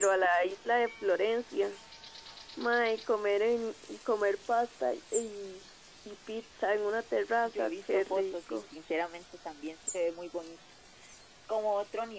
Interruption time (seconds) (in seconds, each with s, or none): 7.4 s